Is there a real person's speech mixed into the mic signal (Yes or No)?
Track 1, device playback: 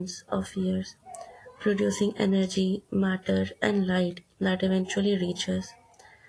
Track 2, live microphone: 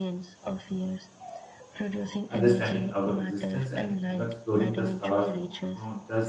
Yes